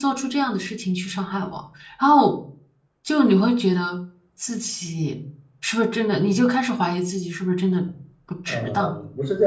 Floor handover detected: Yes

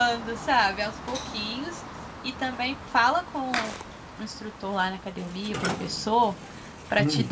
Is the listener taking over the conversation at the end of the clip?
No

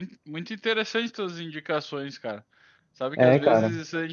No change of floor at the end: Yes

